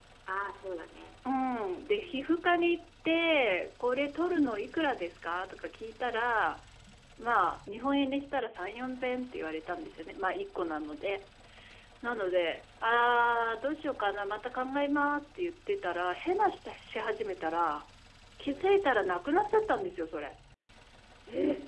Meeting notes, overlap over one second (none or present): none